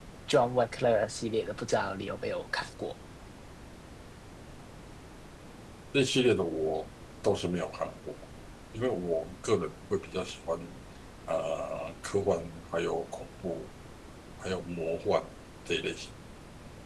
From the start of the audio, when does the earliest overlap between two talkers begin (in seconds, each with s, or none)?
none